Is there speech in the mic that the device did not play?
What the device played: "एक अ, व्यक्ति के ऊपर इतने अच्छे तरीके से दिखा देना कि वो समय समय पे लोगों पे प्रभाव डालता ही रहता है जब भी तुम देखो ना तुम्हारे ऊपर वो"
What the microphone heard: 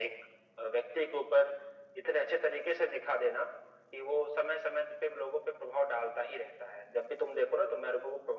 No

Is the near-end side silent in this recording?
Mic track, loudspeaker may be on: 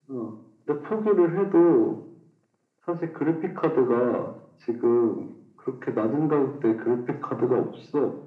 Yes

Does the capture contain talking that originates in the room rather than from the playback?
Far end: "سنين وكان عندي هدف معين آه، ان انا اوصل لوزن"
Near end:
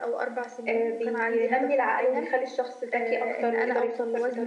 Yes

